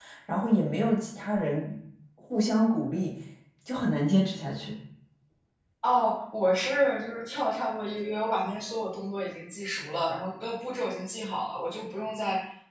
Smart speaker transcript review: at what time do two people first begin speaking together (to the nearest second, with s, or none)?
none